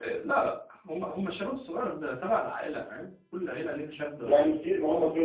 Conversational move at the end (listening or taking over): taking over